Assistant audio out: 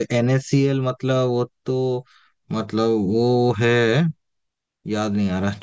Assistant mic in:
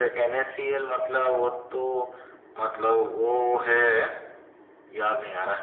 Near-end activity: none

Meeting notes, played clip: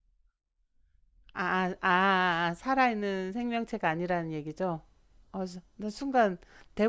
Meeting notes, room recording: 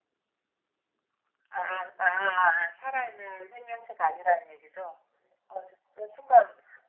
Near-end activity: none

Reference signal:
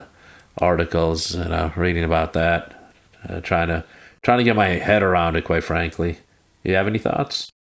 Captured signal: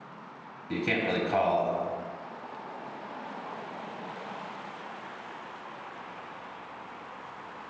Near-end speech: present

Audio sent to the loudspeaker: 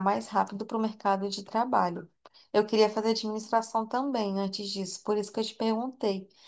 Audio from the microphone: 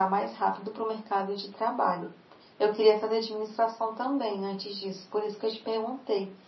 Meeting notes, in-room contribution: none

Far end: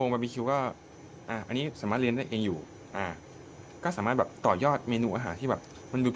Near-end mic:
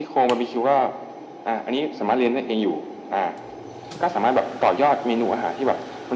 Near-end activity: none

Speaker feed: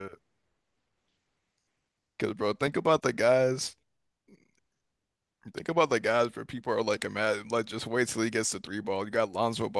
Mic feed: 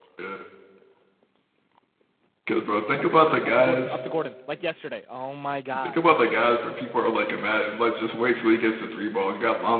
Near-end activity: present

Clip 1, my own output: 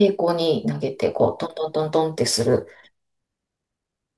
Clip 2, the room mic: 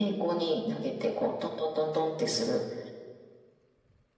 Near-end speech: none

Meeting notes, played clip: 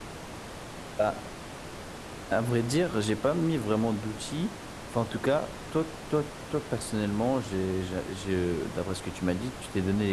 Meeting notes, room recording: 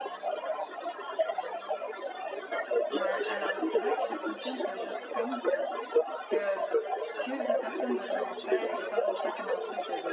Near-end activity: present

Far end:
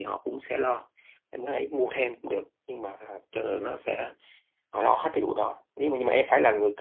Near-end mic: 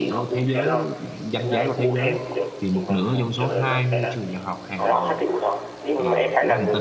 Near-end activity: present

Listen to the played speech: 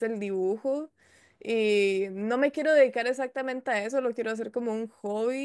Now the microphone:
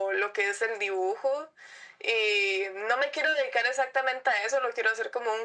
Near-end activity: none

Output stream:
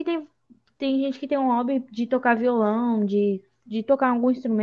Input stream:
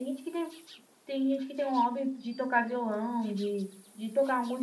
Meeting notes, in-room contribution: none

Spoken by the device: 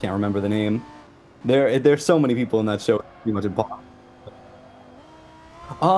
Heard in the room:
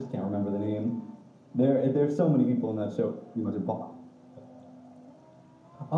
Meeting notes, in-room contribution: none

